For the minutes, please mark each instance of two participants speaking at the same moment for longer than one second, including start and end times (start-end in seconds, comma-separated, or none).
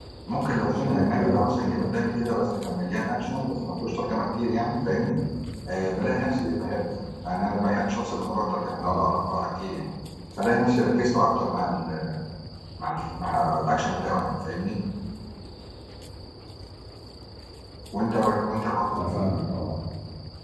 0.6-1.9